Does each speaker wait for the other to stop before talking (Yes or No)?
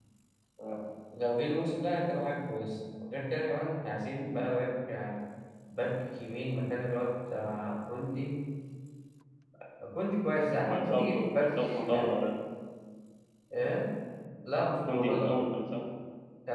No